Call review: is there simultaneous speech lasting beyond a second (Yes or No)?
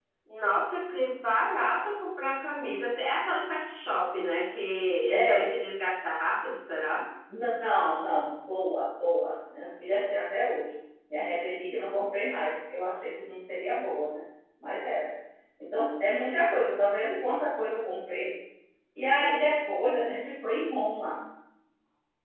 No